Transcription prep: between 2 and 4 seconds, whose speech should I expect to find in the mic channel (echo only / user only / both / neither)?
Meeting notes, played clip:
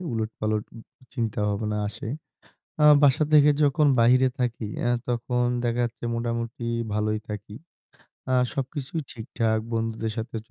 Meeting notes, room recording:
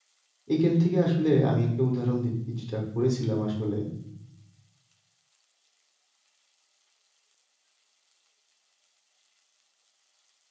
user only